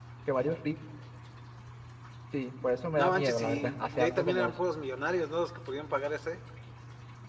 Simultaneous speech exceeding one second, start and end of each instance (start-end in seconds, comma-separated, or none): 2.9-4.5